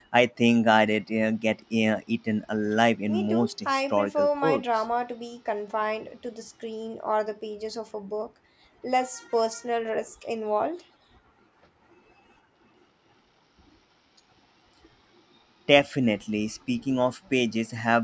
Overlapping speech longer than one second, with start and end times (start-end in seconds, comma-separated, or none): 3.1-4.6